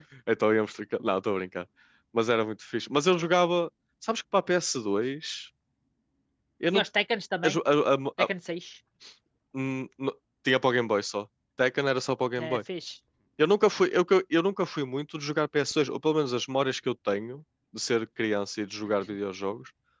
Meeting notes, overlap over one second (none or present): none